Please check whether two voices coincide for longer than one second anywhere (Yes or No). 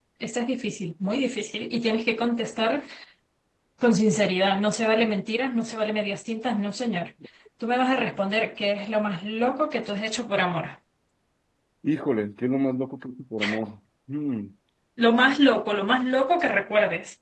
No